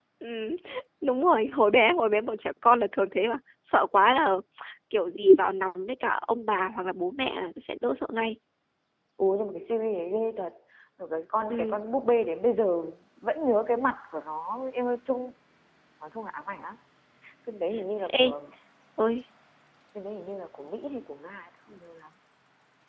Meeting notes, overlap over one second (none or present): none